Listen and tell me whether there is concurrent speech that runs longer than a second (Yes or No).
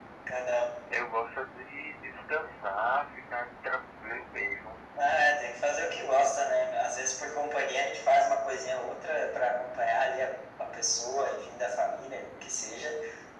No